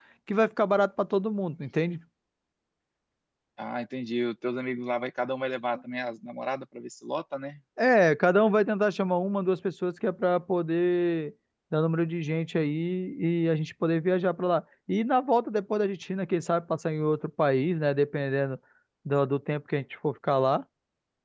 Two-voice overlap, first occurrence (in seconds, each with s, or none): none